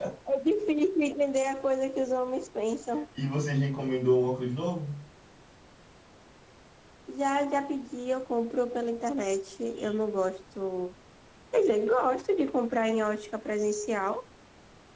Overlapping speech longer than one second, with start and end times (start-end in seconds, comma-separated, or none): none